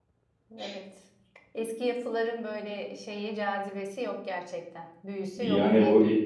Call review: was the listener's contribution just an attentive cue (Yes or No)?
No